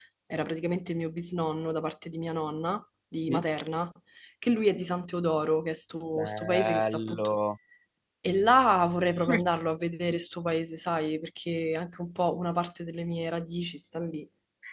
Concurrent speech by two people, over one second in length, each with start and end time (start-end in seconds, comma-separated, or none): 6.2-7.4